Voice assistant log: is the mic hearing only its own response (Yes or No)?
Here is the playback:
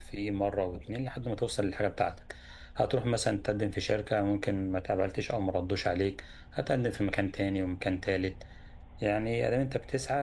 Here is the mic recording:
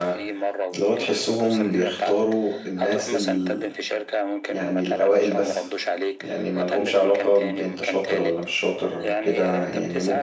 No